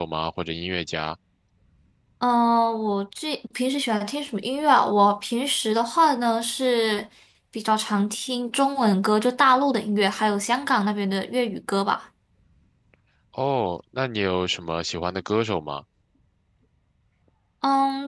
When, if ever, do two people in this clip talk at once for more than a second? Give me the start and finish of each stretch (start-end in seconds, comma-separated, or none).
none